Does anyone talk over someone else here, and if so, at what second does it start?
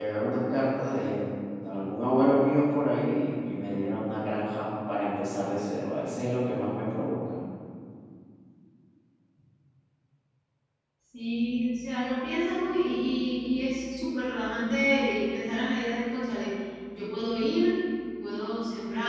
none

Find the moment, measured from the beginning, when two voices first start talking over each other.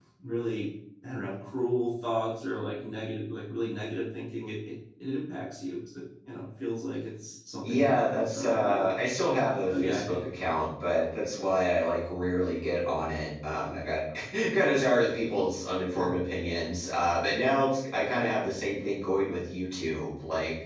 7.6 s

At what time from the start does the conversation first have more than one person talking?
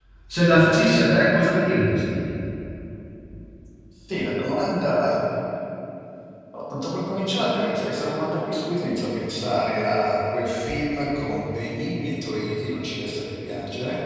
none

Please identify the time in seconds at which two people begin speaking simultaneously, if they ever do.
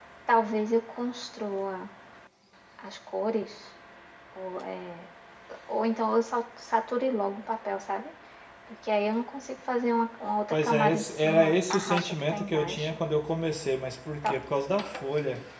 10.5 s

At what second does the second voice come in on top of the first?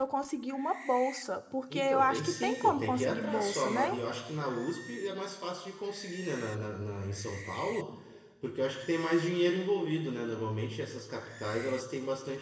1.7 s

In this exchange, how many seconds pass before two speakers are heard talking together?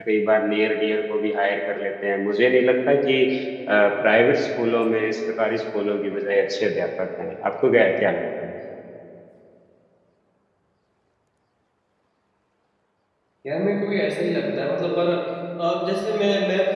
none

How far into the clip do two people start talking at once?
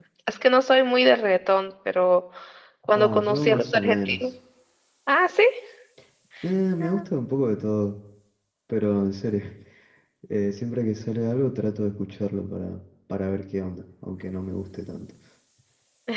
2.9 s

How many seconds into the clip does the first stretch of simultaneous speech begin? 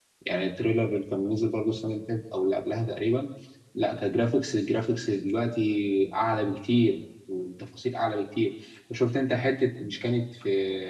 none

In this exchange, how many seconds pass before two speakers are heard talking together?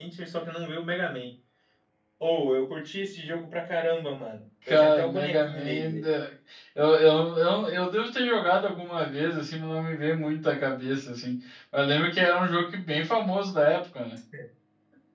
4.7 s

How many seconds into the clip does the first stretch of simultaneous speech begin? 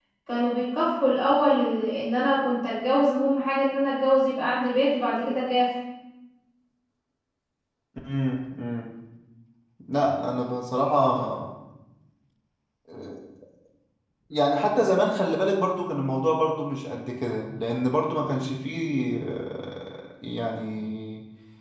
none

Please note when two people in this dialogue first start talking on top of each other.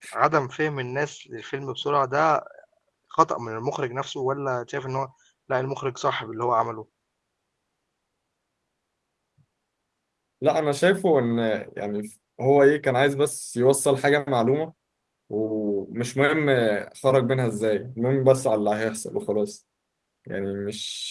none

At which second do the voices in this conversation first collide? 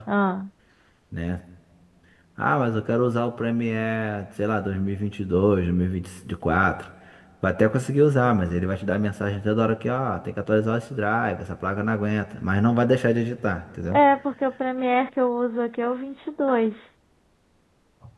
none

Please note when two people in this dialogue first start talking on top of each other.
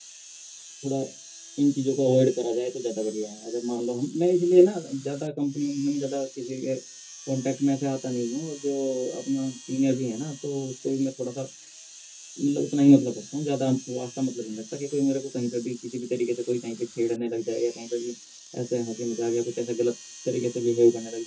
none

